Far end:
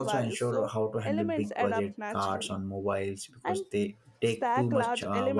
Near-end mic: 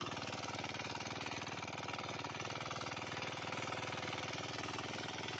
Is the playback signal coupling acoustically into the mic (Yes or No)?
No